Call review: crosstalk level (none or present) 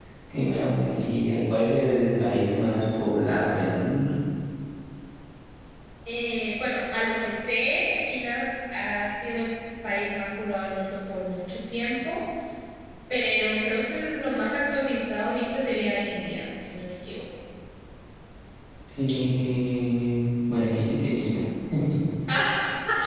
none